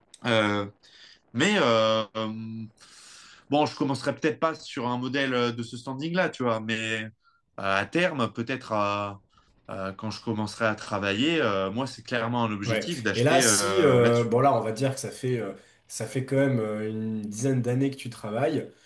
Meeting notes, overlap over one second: present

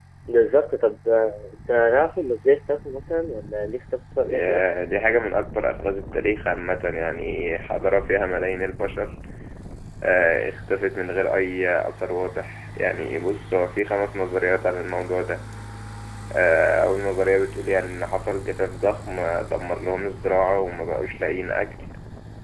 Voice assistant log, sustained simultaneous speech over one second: none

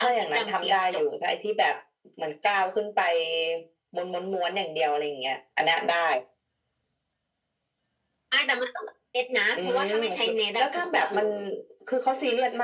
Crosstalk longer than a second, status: present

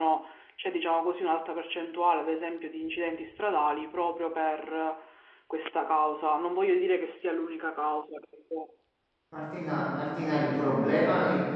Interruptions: none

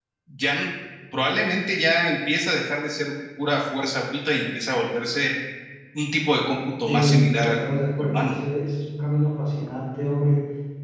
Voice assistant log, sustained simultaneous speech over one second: present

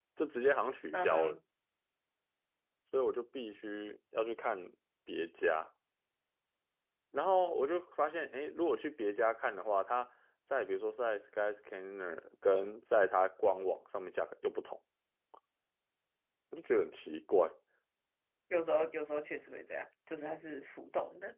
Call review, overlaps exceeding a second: none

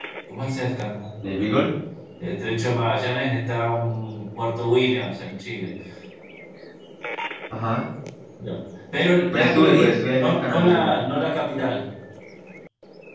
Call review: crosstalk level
present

